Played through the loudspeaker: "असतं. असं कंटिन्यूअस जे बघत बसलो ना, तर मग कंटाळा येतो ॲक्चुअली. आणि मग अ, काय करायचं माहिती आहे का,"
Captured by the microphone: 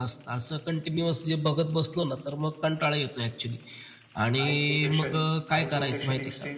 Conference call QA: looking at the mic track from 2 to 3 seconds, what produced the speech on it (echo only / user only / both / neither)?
echo only